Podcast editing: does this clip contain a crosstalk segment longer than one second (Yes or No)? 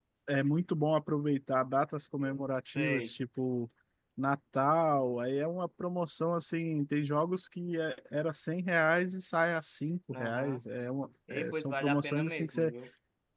Yes